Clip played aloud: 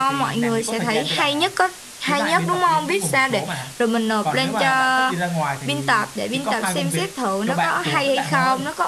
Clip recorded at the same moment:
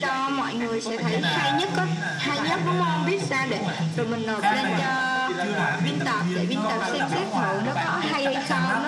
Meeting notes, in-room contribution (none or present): present